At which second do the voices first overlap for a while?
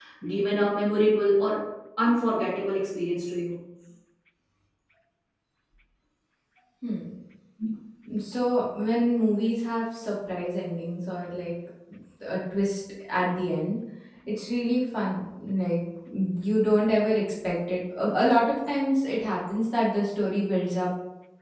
none

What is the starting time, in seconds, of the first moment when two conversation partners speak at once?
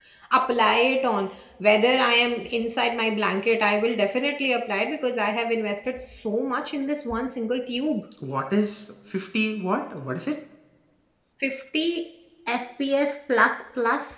none

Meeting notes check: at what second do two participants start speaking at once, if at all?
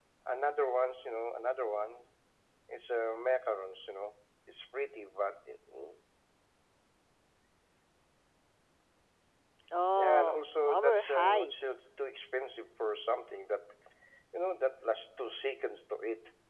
10.0 s

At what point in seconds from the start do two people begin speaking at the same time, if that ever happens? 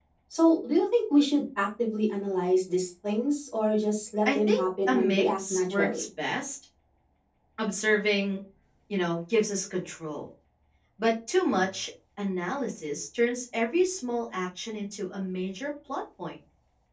4.2 s

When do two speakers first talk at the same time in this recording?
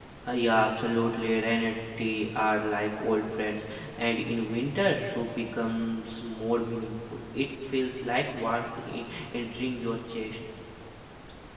none

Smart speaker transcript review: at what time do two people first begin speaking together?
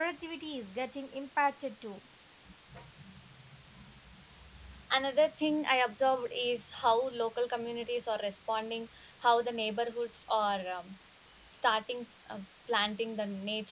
none

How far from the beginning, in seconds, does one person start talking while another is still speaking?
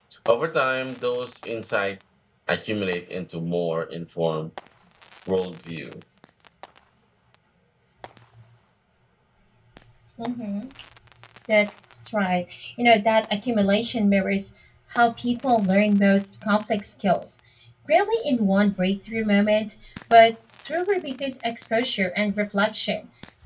none

